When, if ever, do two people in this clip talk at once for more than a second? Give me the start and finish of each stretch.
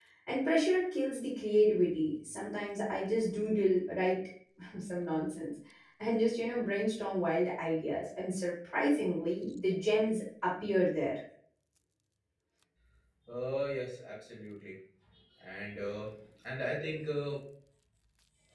none

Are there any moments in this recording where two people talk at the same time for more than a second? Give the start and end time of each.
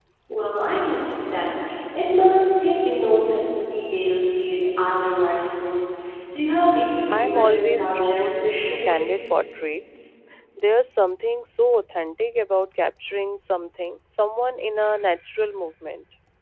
7.1-8.9

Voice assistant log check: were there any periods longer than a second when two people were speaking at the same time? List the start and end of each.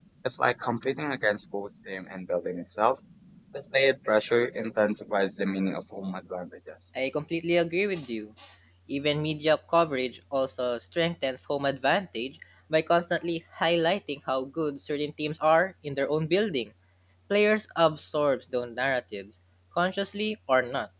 none

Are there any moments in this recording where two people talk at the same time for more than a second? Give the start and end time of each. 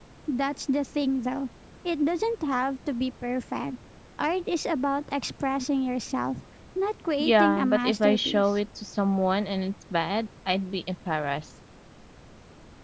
7.2-8.5

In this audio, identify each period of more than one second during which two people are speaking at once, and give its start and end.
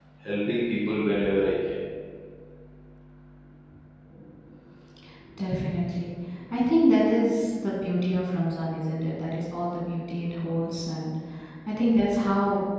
none

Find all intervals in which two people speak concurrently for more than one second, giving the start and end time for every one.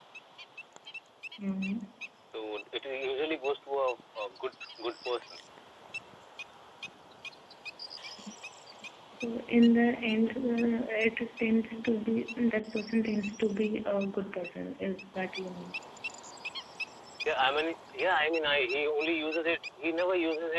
none

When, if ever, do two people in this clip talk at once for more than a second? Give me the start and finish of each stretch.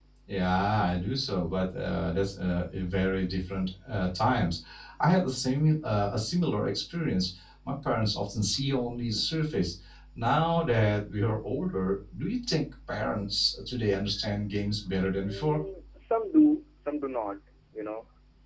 none

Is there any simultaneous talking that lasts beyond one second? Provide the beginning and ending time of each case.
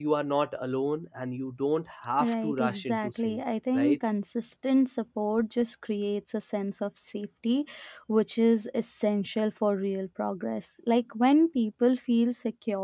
2.2-4.0

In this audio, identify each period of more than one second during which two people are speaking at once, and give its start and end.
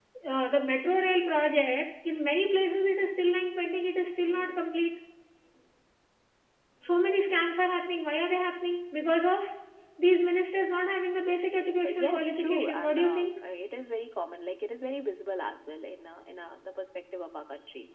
11.8-13.3

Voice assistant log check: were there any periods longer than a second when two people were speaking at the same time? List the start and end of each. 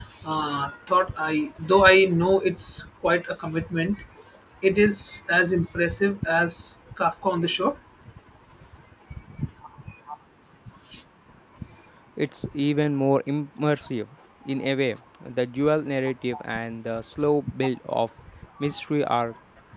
none

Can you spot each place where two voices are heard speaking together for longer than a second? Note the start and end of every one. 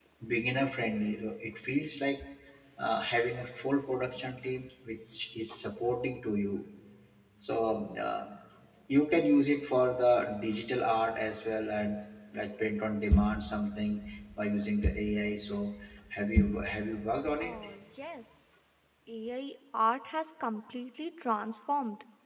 none

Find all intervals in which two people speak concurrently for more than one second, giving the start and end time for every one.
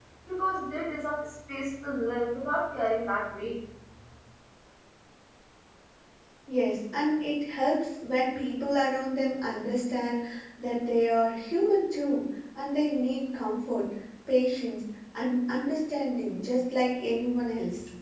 none

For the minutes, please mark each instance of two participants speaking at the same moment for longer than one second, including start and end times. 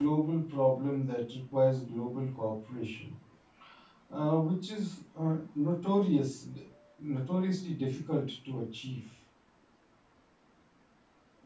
none

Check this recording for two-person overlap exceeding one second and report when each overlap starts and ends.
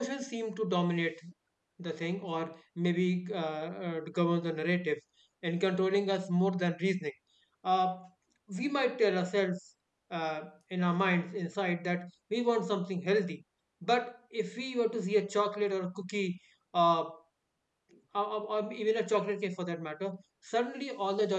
none

